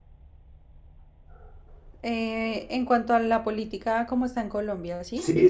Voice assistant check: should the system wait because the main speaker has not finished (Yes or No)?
No